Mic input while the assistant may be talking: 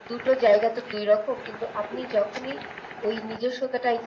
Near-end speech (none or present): none